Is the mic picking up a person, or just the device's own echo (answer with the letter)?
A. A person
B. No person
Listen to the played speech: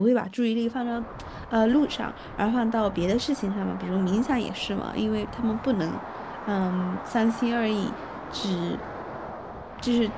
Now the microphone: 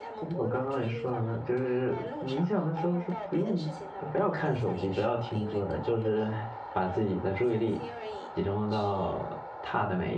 A